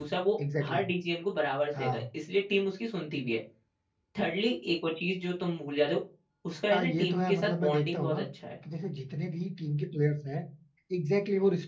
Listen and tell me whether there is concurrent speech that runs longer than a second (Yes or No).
Yes